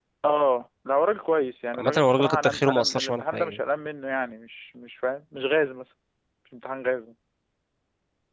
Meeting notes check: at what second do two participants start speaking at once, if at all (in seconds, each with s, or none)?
1.7 s